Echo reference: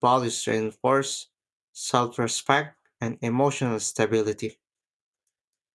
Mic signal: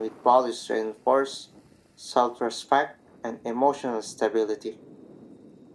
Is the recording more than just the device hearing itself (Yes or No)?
No